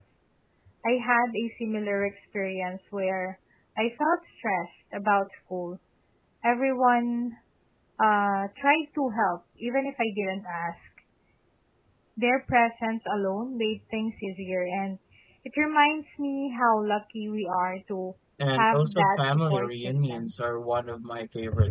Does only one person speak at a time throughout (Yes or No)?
No